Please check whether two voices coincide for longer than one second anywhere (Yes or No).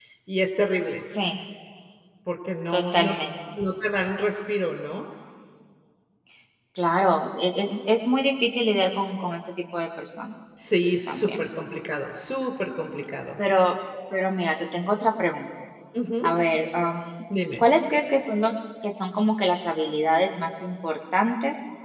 No